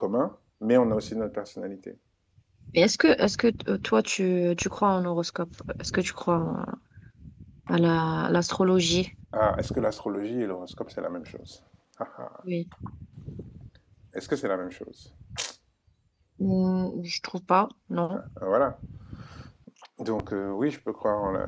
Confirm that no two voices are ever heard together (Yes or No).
Yes